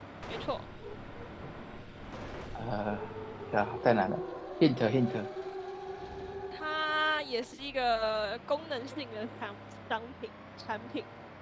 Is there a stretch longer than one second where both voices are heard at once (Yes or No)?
No